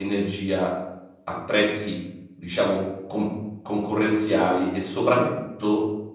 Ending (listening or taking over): listening